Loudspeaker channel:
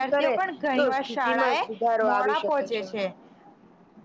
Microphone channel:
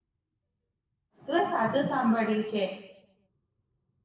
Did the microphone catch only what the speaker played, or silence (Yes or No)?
No